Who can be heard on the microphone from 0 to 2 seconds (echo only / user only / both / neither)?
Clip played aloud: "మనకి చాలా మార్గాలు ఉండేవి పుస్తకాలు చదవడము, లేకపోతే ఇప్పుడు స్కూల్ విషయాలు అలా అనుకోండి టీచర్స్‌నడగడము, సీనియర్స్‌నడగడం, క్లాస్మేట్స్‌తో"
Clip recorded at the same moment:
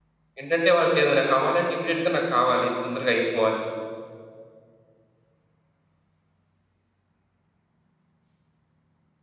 user only